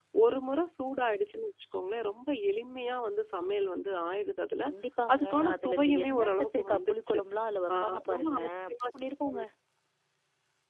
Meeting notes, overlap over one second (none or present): present